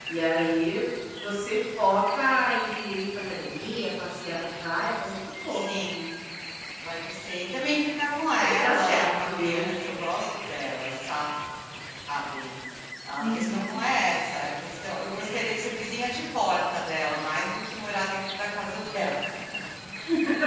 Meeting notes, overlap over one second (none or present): present